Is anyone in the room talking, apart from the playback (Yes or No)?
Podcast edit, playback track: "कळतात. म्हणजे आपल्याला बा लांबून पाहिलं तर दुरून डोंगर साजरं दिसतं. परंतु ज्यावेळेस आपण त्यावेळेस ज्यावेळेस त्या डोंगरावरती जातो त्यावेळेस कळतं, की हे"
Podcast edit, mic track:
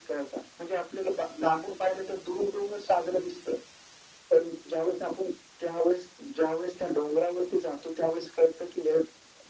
No